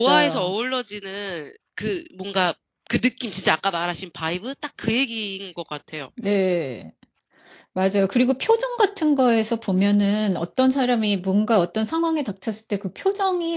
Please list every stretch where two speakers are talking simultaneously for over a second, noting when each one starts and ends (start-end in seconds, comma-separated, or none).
none